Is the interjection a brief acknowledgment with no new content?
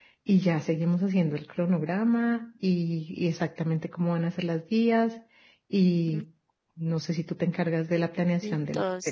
No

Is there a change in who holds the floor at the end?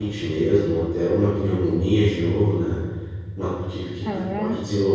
No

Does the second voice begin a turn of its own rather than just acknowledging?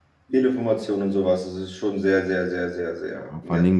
Yes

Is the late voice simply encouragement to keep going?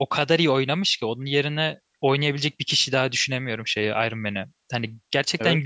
Yes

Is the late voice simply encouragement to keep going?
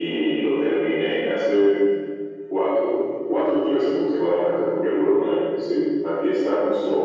Yes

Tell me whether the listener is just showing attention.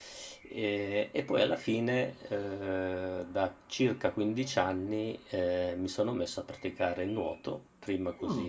Yes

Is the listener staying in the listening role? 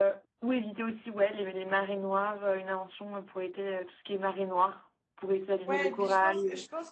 No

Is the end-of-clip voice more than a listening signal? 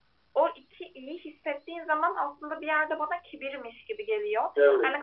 No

